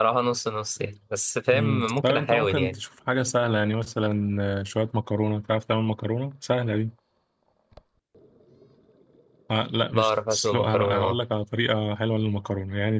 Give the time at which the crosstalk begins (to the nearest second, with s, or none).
2 s